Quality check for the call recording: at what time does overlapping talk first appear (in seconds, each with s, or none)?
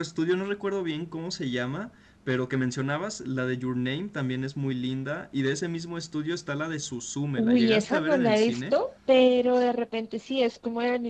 7.4 s